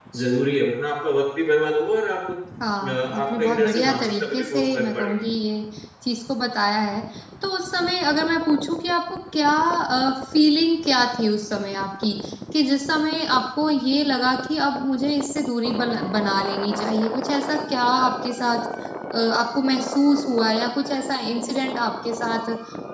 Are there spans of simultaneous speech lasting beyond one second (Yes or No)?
Yes